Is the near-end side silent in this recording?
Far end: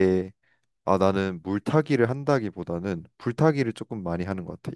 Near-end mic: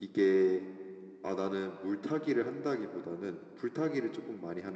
Yes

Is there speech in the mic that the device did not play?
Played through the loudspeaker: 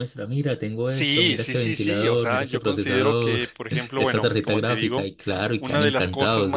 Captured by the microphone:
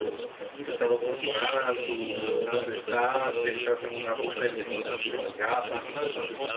Yes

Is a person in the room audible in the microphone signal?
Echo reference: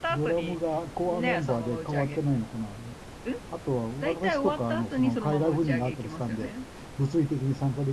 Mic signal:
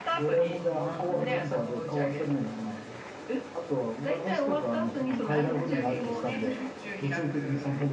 Yes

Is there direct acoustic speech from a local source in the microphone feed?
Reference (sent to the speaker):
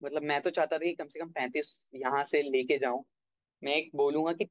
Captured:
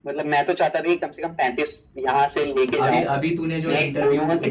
Yes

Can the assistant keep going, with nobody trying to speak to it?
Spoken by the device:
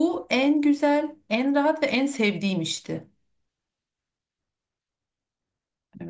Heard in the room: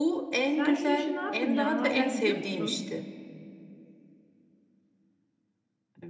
No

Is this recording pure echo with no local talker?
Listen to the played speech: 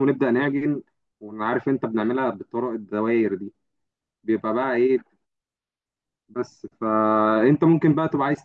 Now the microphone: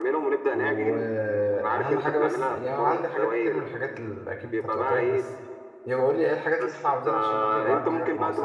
No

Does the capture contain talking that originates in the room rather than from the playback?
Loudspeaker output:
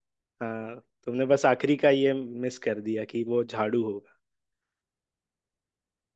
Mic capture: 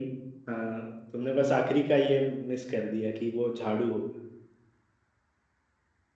No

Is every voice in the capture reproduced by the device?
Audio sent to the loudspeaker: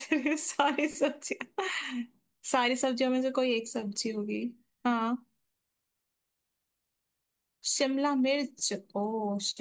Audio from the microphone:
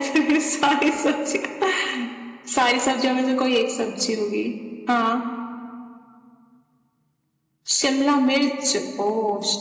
Yes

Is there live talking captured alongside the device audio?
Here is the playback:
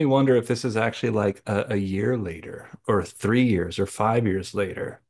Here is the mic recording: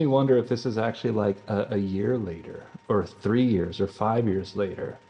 No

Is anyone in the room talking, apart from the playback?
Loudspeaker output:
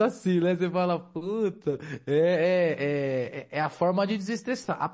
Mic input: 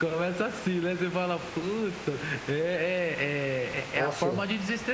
Yes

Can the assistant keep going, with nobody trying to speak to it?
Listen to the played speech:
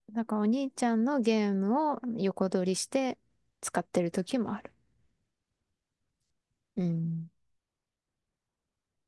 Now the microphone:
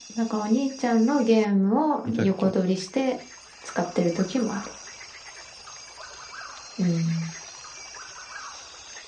No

